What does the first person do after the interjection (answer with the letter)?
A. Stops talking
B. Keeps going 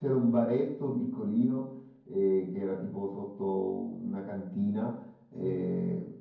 B